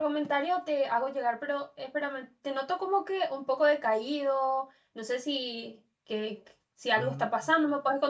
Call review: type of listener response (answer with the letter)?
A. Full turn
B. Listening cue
B